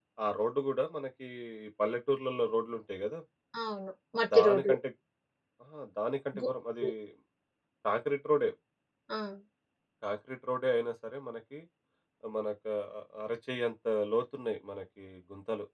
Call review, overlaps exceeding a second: none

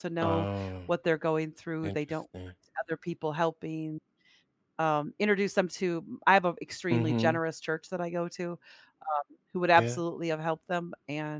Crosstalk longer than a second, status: none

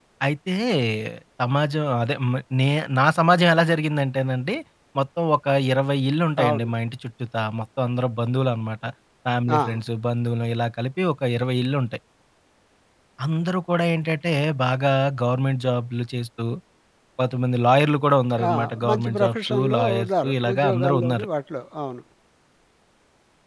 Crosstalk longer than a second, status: present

